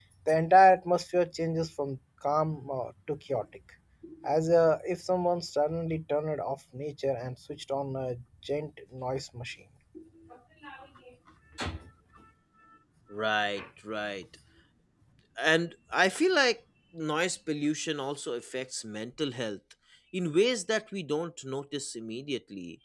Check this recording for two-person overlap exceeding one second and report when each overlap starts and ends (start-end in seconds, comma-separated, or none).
none